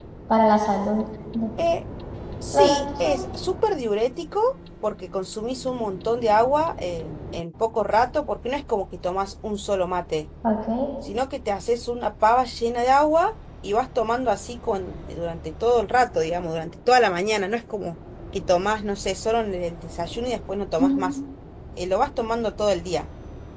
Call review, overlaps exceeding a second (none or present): none